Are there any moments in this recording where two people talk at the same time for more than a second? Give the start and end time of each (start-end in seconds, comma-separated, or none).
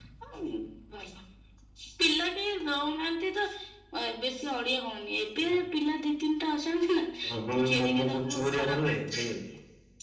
7.2-9.4